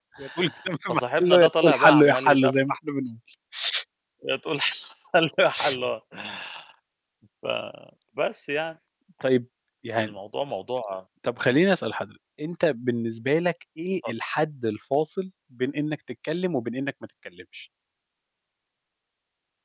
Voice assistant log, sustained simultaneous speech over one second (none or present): present